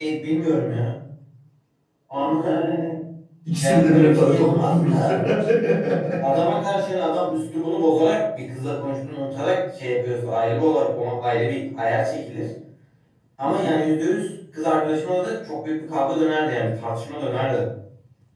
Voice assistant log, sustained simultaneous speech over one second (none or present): present